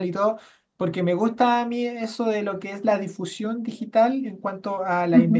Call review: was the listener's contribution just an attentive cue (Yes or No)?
Yes